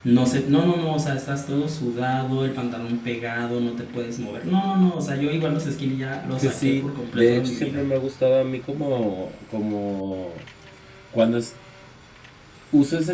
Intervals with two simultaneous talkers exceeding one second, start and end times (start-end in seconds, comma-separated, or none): 6.5-7.9